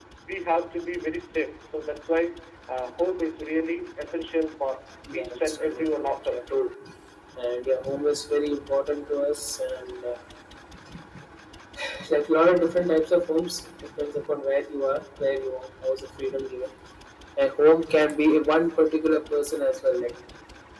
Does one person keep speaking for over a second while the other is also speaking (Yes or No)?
Yes